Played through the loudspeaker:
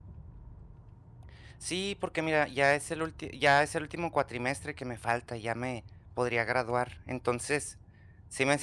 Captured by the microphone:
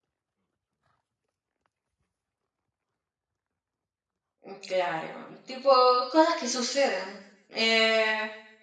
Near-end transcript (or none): Mm, Claro, tipo cosas que suceden. Eh,